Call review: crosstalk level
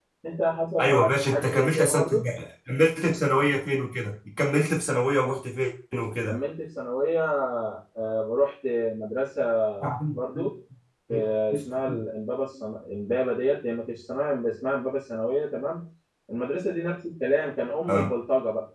present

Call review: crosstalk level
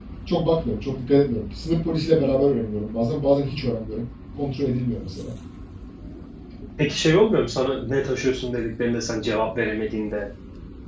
none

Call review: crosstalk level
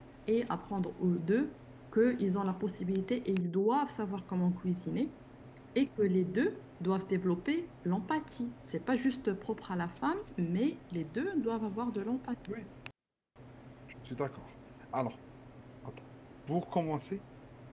none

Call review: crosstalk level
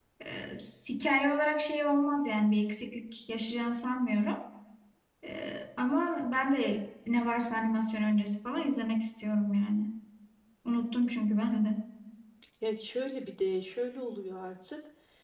none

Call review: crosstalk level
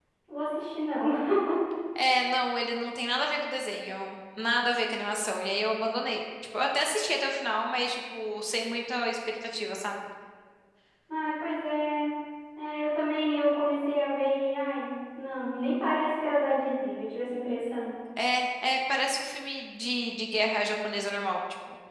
none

